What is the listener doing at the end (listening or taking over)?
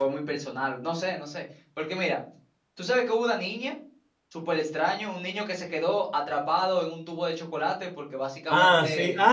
taking over